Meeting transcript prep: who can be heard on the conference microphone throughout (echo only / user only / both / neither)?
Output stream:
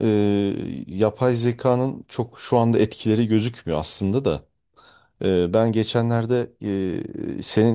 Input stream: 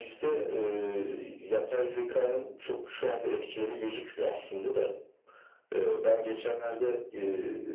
echo only